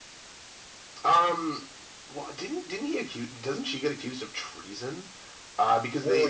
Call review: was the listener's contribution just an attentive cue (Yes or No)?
Yes